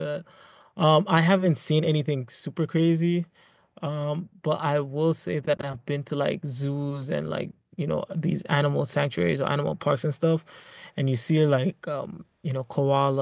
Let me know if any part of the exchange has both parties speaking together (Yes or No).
No